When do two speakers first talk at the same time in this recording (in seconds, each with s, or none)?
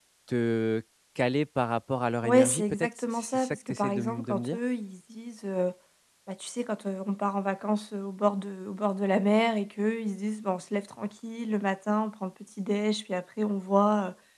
2.2 s